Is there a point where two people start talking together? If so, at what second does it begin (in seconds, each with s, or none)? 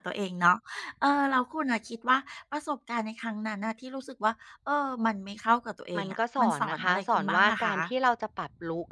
5.9 s